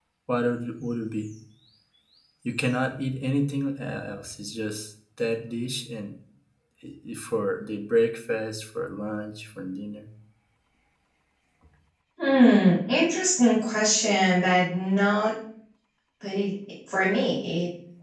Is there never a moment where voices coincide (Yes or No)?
Yes